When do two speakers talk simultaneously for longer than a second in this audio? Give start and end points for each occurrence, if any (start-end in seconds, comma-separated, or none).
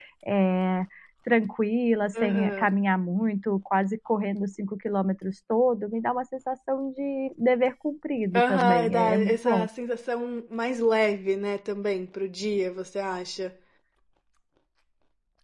8.3-9.7